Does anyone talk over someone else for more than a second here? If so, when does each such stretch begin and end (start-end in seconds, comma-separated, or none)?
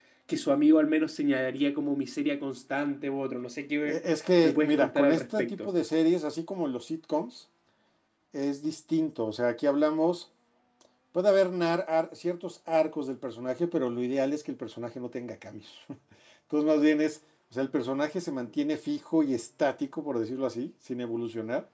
4.4-5.7